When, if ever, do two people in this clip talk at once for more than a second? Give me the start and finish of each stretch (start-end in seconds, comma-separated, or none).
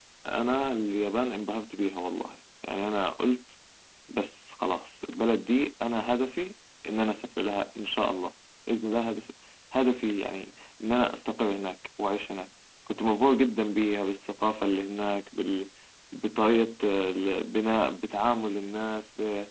none